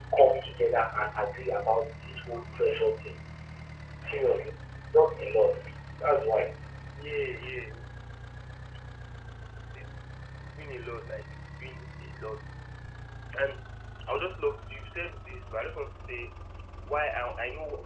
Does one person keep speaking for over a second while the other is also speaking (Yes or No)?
No